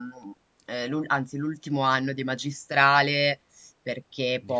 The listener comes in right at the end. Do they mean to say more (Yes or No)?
No